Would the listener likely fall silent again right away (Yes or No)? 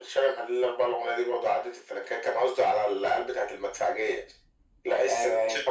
Yes